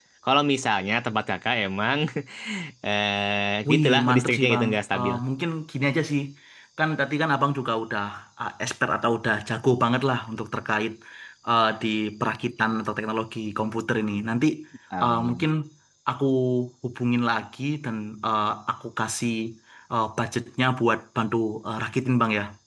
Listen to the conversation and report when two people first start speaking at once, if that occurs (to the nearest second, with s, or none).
4 s